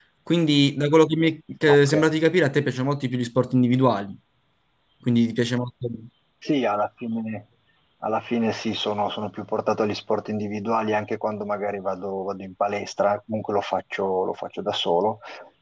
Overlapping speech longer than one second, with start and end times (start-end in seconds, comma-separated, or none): none